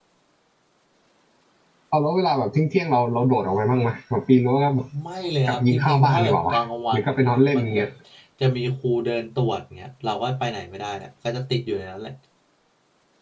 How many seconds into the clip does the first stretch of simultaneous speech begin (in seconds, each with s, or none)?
5.5 s